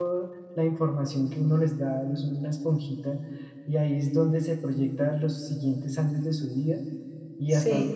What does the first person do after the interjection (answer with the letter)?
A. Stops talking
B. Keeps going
B